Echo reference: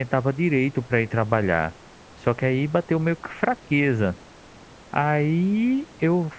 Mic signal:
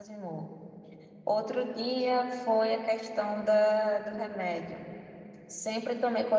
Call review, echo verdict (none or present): none